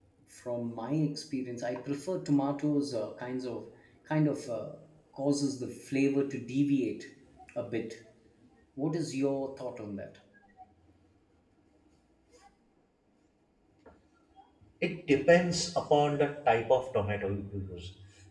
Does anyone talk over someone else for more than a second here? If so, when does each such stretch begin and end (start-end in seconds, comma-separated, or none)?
none